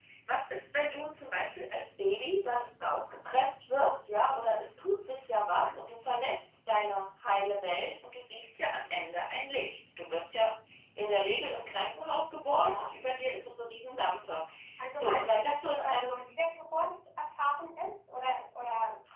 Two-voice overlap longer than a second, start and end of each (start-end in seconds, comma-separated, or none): 14.9-16.2